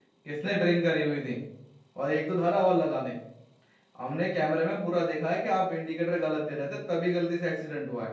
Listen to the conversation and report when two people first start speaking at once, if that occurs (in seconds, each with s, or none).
none